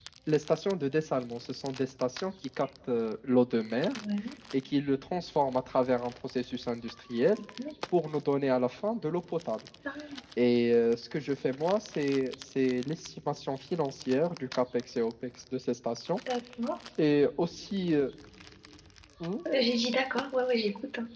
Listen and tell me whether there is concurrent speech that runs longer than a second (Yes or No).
No